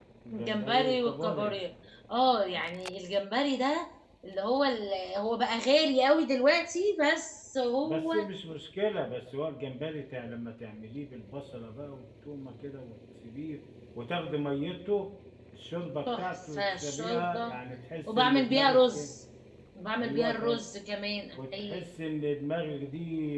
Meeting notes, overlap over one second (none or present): present